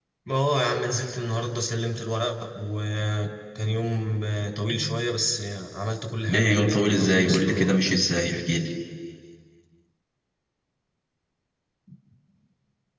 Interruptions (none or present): present